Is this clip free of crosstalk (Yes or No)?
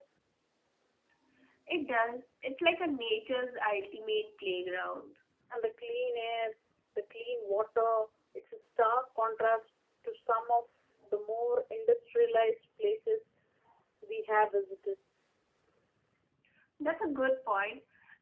Yes